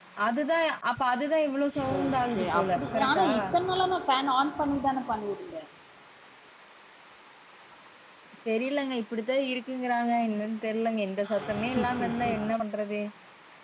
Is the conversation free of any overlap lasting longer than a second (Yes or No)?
No